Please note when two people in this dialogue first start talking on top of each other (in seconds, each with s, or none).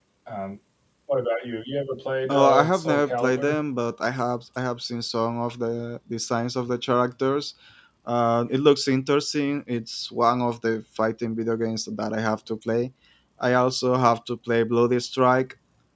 2.3 s